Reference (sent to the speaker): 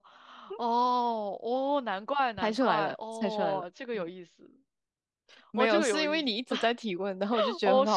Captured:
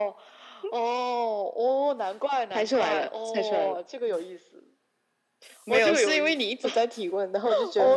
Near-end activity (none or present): none